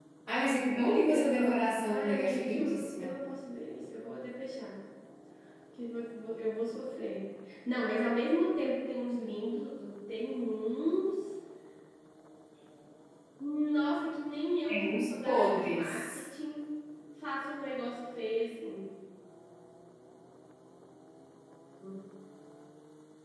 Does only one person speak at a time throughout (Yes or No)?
No